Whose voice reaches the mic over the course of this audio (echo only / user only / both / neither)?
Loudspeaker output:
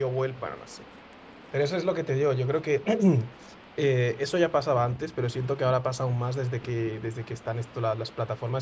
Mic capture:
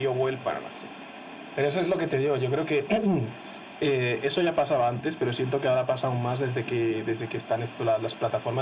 echo only